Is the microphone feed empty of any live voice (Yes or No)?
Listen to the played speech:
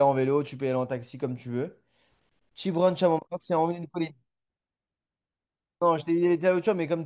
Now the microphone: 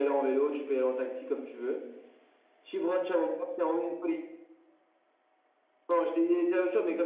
Yes